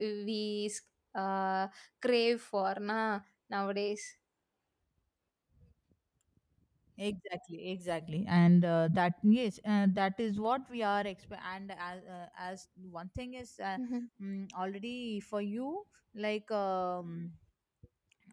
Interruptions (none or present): none